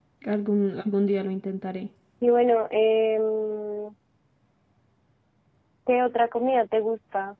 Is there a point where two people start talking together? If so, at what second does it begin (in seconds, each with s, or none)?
none